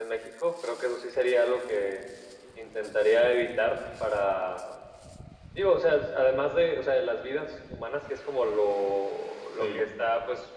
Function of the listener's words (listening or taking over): listening